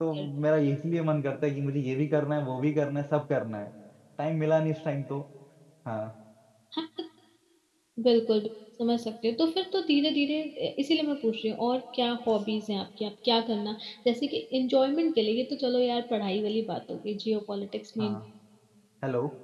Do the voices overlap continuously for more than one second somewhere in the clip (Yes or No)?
No